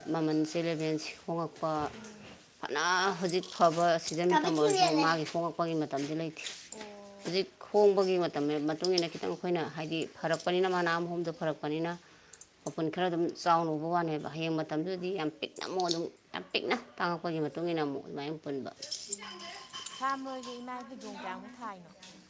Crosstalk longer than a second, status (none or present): none